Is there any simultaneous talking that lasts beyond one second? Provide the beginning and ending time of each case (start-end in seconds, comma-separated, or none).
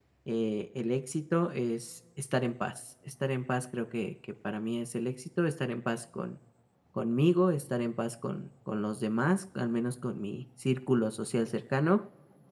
none